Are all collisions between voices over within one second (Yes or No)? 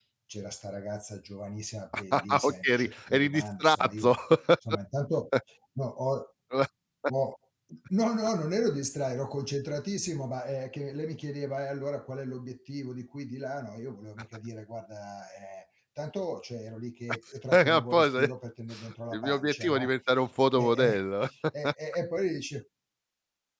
No